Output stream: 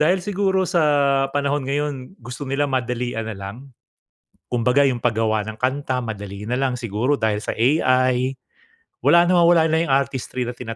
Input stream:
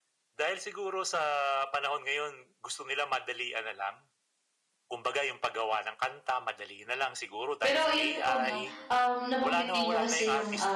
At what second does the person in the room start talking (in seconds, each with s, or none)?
7.6 s